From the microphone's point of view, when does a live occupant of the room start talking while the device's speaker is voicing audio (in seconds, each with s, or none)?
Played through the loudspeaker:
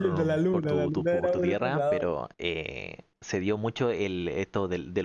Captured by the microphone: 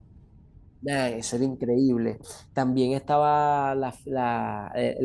0.8 s